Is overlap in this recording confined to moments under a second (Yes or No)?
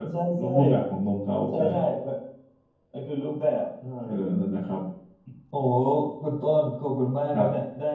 Yes